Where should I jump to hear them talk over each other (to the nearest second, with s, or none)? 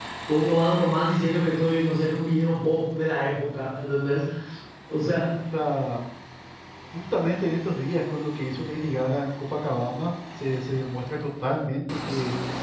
none